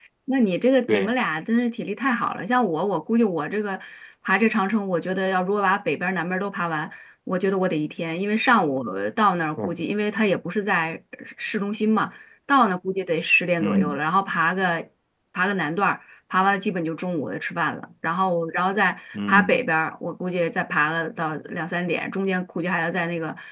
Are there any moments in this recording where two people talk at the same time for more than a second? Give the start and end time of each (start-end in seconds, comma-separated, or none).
none